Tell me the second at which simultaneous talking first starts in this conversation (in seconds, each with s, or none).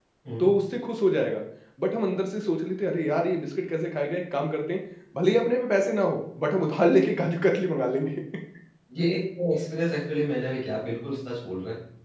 none